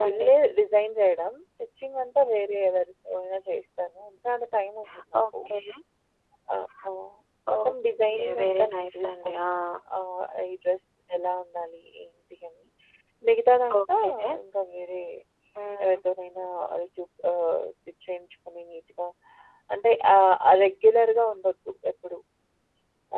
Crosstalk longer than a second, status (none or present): present